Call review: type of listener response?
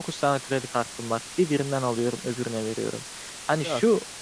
listening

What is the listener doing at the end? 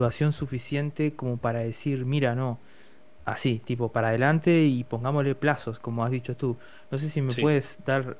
listening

